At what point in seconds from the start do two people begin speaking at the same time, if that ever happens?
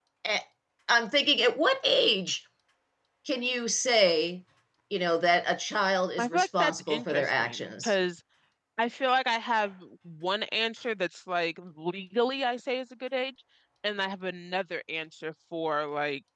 6.2 s

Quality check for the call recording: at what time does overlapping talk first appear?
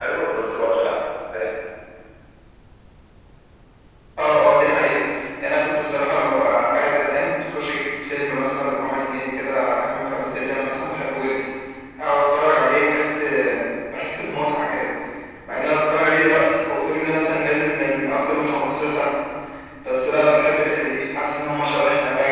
none

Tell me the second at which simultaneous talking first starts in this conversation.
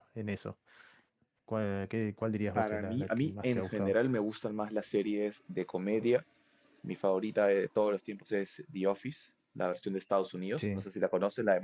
2.5 s

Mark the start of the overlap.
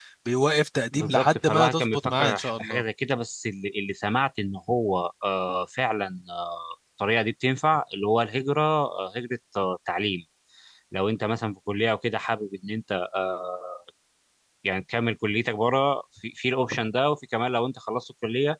0.9 s

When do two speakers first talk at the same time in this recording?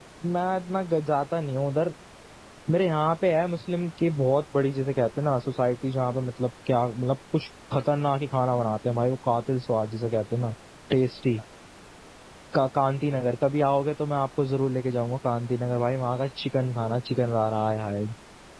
none

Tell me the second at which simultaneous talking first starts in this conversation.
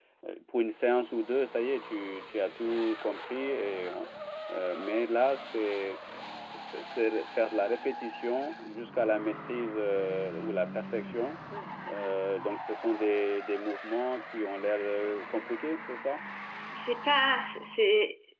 none

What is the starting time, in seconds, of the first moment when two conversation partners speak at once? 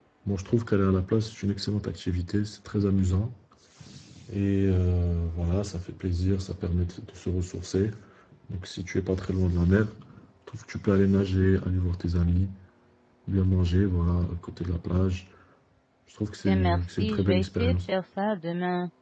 16.4 s

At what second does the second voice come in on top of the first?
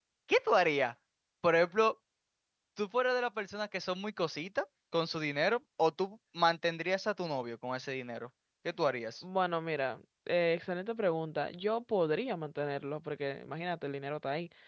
none

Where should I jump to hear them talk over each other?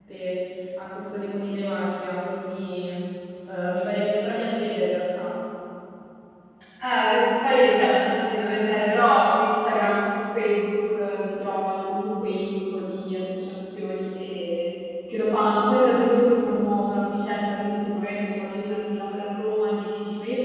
none

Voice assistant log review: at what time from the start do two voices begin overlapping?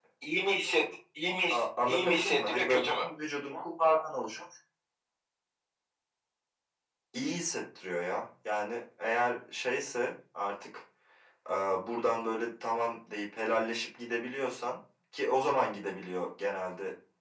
1.5 s

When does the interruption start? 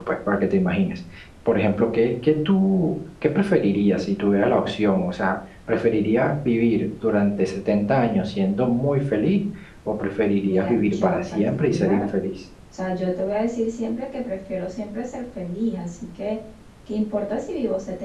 10.4 s

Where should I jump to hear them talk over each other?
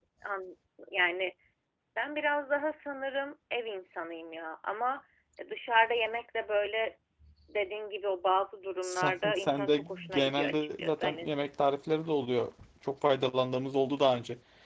8.8 s

